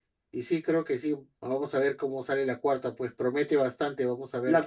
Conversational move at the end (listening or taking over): taking over